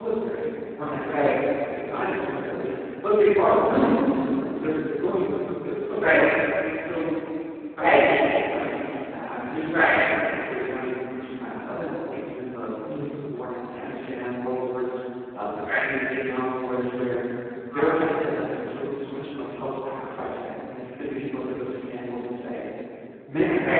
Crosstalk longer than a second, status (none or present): none